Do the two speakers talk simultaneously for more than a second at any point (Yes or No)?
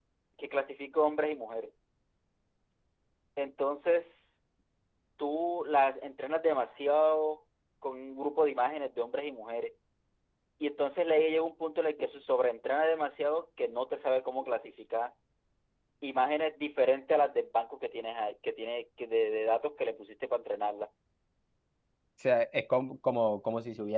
No